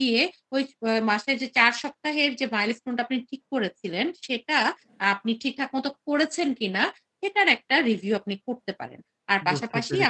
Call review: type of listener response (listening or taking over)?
listening